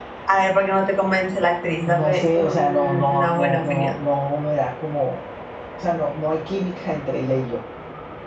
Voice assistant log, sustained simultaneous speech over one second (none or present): present